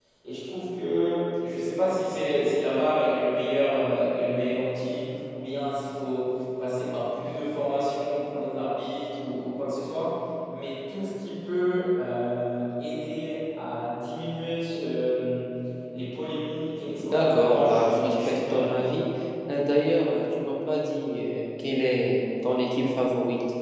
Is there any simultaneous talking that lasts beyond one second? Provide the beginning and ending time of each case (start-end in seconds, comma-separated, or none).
17.0-18.9